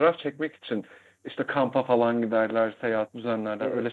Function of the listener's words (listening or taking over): taking over